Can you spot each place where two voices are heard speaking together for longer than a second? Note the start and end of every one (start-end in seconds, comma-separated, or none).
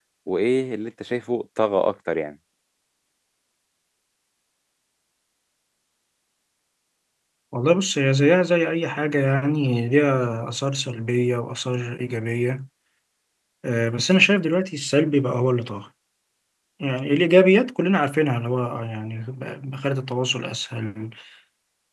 none